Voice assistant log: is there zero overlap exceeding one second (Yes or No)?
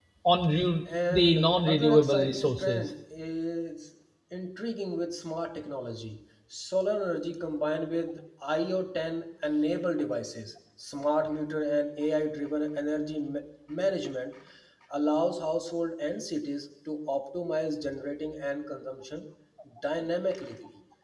No